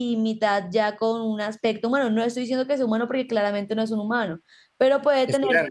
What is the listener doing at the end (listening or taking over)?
listening